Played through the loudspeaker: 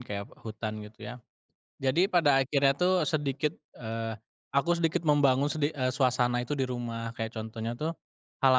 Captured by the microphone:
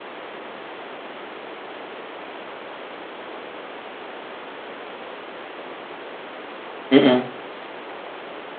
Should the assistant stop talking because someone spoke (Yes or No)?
Yes